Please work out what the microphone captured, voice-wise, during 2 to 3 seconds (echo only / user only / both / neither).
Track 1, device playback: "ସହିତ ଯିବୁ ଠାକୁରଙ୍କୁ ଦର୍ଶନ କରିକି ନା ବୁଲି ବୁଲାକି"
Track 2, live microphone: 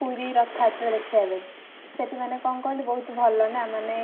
user only